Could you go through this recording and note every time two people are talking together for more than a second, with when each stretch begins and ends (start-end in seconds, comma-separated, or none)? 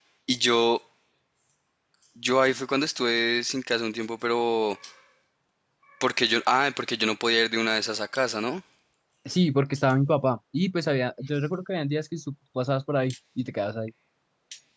none